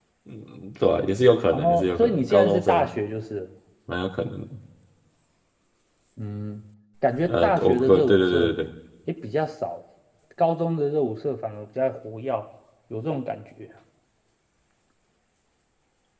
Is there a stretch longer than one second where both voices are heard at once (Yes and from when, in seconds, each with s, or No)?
Yes, from 1.5 s